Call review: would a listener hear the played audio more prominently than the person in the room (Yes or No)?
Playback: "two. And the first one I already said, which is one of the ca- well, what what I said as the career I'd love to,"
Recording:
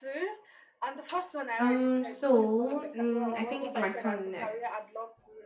No